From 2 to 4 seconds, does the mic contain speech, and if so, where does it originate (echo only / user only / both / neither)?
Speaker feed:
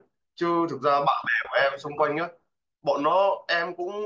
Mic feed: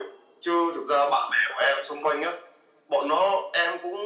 echo only